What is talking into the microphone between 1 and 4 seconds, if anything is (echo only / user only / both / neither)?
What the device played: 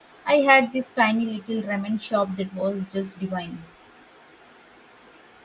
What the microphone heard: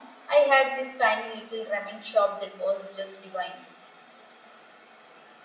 echo only